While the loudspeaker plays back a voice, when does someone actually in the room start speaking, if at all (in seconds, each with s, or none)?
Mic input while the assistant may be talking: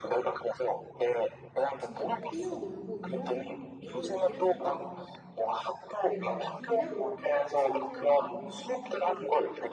1.8 s